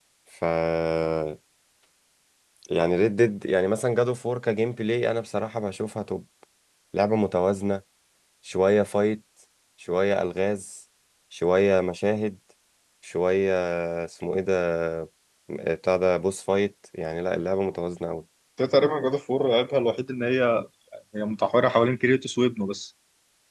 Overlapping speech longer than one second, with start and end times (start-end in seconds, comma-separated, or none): none